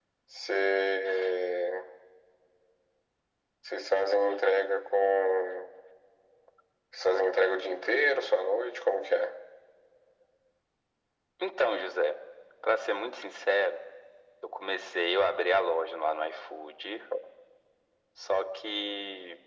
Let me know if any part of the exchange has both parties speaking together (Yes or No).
No